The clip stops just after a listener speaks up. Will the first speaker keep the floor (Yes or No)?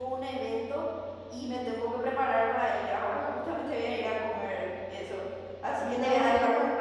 No